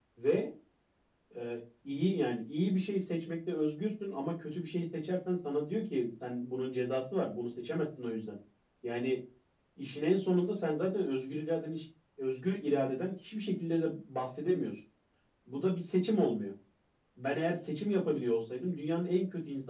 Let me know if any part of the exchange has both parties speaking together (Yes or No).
No